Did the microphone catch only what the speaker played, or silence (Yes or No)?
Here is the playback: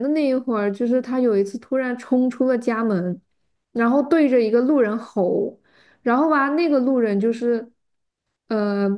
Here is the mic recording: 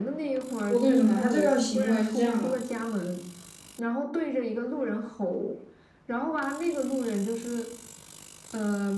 No